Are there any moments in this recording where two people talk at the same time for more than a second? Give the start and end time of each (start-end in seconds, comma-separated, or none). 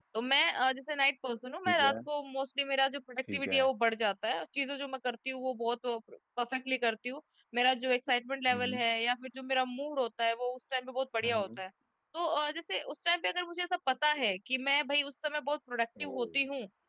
none